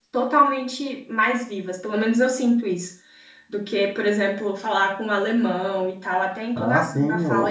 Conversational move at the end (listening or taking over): taking over